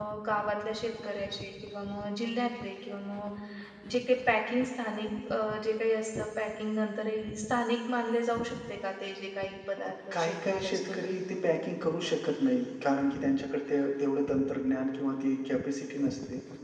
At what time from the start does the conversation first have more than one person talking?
9.8 s

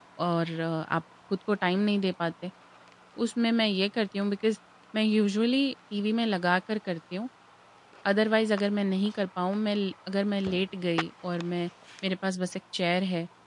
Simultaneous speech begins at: none

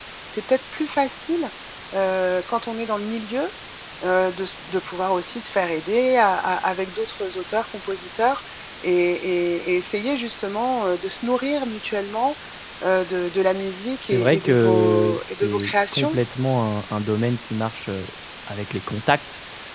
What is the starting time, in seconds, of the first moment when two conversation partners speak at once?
14.0 s

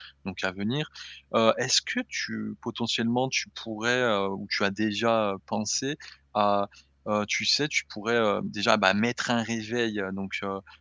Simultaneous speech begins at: none

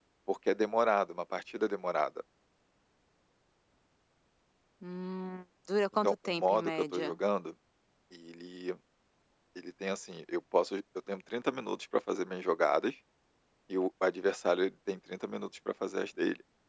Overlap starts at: 5.9 s

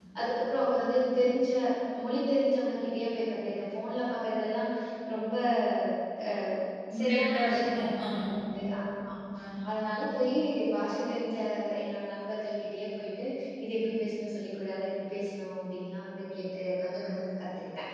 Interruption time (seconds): 7.0 s

